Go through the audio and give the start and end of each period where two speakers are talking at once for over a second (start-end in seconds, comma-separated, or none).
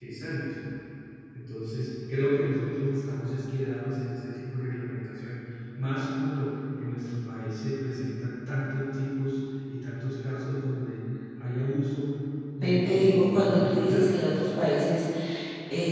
12.6-14.4